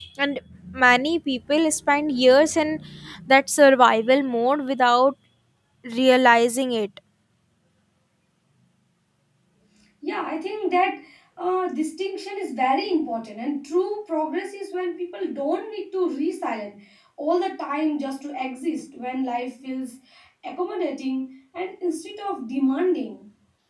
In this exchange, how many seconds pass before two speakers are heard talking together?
none

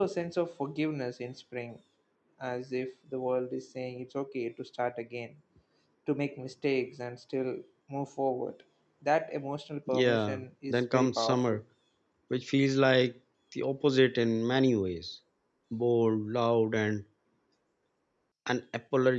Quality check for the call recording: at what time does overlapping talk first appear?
9.9 s

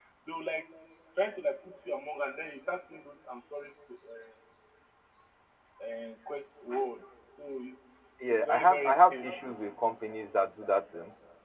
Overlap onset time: 8.3 s

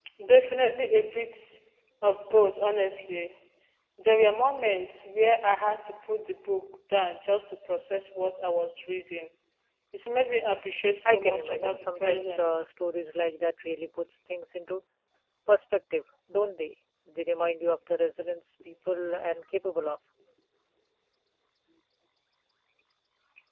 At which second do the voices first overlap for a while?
11.1 s

